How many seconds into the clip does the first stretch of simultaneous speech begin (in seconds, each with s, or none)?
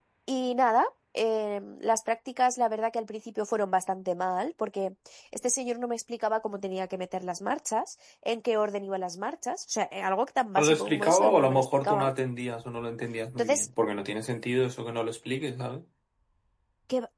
10.6 s